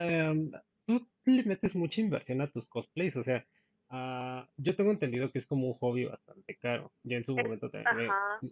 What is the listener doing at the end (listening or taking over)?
listening